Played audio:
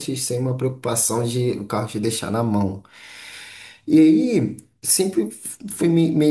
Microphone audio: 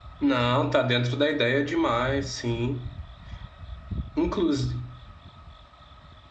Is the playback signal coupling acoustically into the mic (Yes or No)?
No